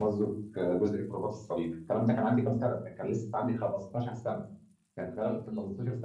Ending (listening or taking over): listening